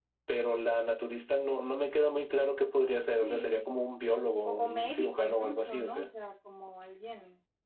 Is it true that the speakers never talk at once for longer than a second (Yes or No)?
No